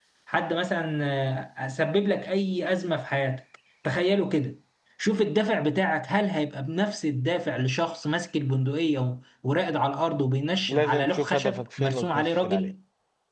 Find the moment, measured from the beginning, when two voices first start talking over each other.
11 s

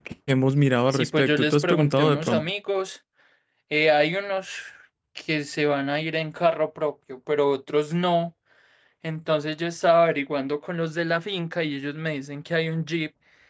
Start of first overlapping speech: 1 s

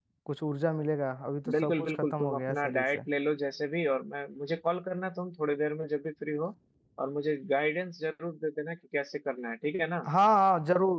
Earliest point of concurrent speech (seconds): 1 s

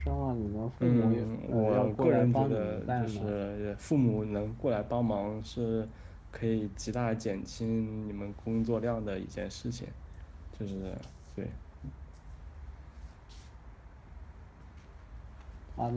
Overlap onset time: 1 s

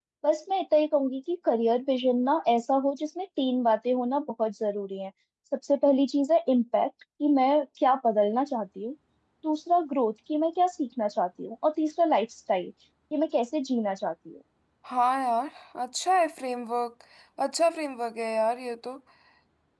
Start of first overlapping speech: none

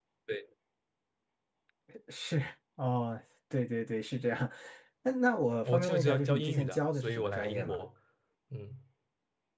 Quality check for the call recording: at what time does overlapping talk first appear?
6 s

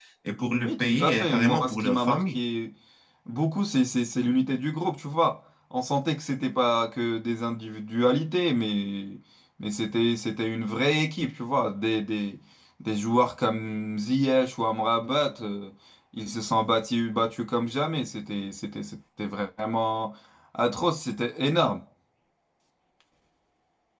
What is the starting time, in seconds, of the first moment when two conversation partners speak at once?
1 s

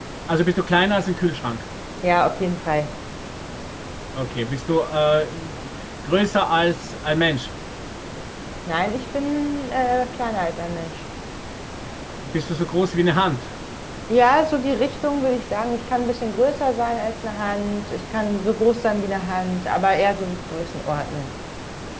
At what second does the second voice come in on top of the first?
none

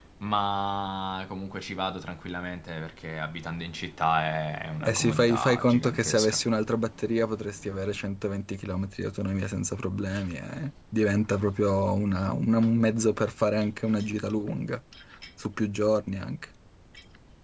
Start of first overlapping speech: 5 s

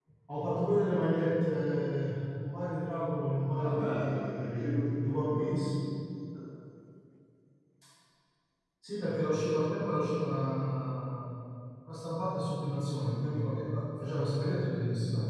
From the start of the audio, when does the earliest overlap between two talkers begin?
4 s

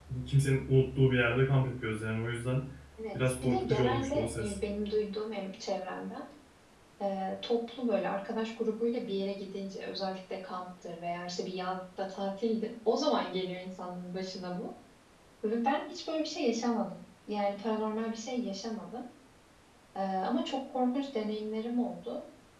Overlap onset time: 3 s

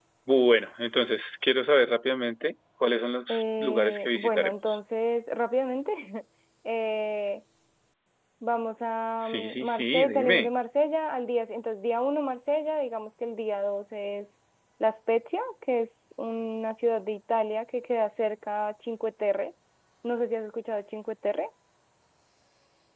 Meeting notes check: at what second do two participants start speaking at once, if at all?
3 s

